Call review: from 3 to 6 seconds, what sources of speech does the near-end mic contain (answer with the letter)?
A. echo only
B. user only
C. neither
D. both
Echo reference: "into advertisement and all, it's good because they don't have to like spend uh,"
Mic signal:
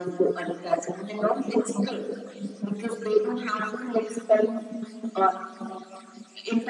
A